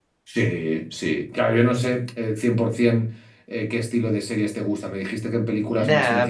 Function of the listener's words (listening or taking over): taking over